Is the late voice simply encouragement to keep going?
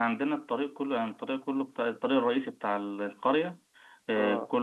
Yes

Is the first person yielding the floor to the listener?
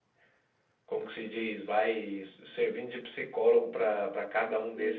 No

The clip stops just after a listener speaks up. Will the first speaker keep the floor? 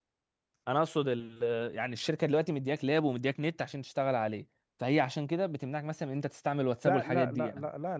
No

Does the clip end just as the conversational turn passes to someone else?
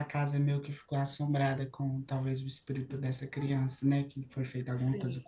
Yes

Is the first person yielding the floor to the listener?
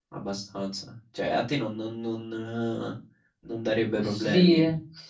Yes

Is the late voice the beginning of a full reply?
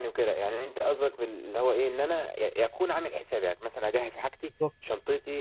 No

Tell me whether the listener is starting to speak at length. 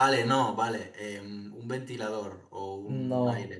Yes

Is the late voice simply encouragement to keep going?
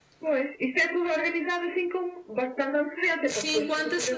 No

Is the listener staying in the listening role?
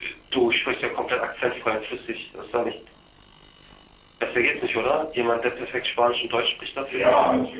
No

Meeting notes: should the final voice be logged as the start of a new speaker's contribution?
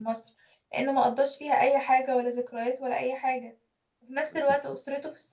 No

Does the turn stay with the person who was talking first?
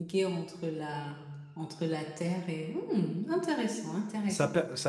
No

